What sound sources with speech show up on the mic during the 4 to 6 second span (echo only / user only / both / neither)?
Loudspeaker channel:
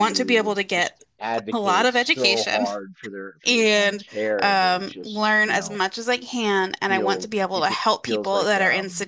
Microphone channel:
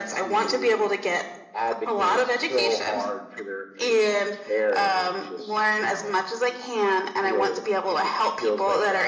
echo only